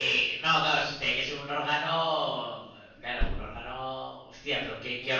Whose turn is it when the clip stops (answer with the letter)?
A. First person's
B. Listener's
B